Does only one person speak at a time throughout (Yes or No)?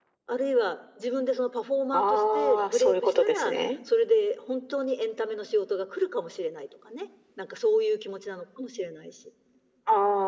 No